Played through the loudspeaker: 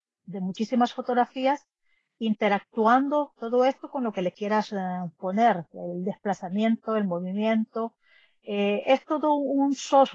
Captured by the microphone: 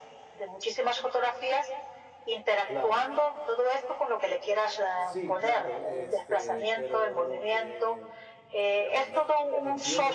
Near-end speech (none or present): present